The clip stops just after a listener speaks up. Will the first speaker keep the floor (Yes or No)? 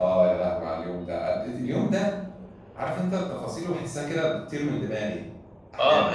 No